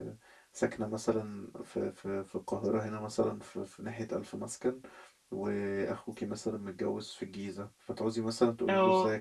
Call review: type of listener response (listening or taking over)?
listening